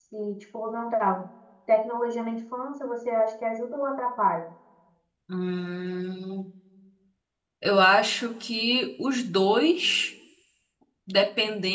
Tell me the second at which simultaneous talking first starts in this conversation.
none

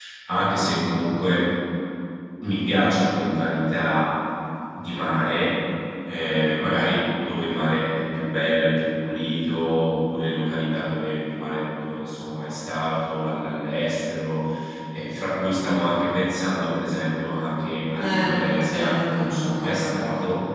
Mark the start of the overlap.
17.9 s

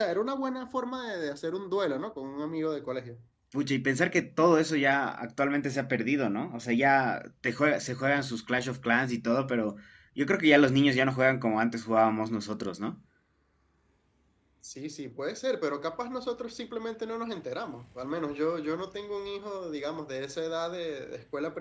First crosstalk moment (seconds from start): none

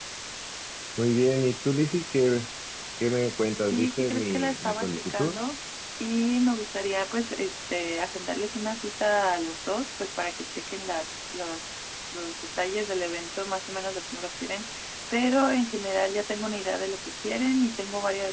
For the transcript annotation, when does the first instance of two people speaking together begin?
3.7 s

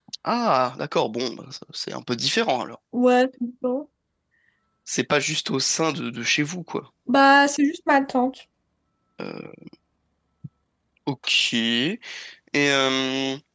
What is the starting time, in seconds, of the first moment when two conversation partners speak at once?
none

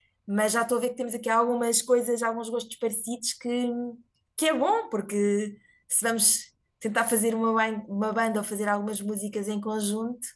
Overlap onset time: none

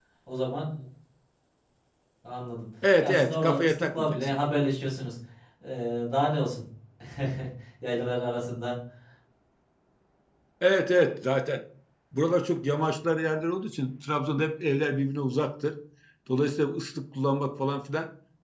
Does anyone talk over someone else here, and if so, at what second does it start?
3.0 s

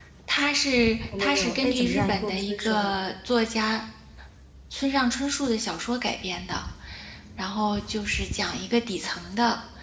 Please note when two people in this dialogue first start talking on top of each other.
1.2 s

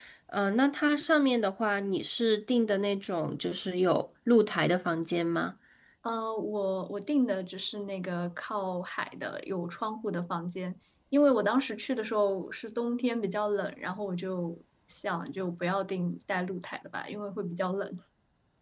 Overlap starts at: none

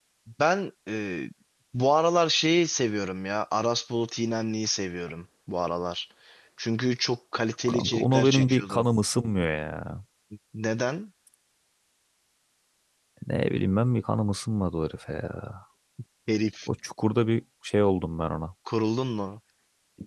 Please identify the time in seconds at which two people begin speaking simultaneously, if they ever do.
7.7 s

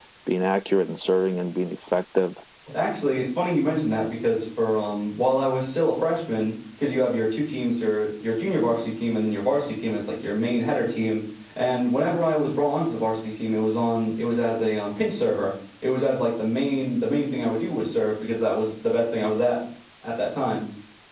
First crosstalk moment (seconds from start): none

